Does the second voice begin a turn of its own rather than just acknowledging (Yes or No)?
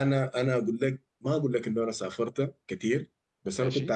No